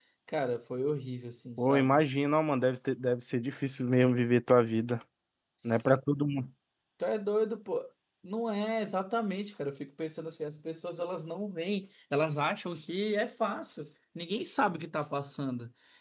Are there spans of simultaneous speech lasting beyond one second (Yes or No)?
No